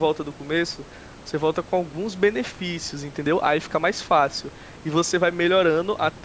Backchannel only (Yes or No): Yes